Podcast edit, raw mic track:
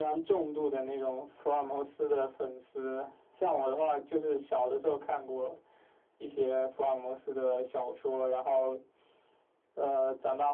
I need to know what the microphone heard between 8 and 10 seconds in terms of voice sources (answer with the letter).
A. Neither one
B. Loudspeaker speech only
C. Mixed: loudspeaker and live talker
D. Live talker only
B